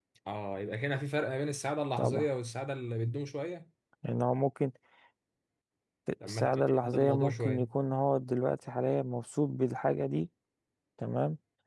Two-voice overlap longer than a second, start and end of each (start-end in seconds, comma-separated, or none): 6.2-7.7